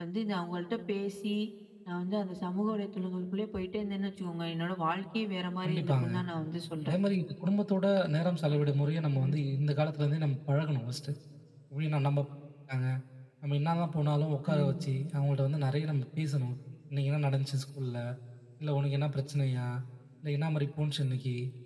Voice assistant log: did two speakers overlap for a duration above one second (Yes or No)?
No